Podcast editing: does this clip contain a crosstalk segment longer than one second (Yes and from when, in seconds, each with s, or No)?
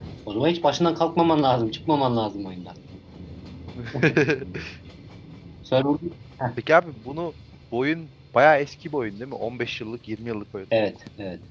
No